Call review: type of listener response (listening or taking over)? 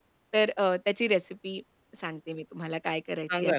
taking over